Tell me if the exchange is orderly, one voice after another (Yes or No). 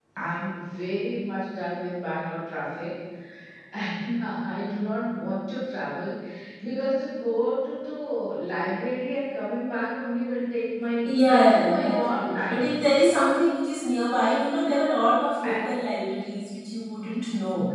No